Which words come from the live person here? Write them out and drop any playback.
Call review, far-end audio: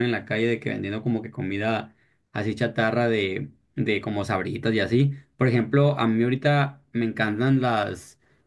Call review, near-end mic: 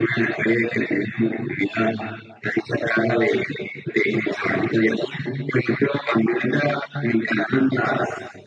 none

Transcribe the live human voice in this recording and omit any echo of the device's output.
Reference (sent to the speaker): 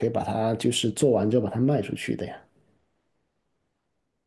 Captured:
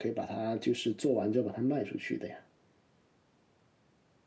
none

